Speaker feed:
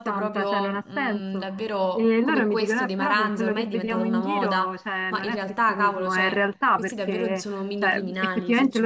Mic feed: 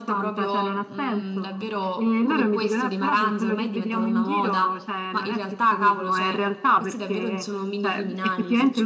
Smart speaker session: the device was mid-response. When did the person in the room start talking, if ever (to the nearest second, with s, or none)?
none